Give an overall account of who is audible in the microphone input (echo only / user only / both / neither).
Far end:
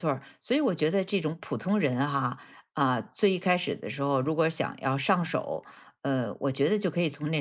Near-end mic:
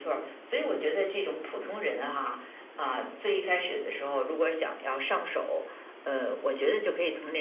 echo only